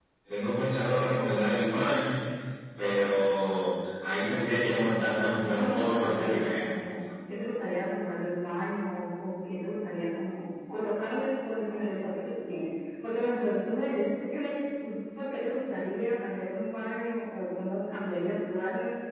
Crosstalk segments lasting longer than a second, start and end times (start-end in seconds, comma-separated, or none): 5.4-6.6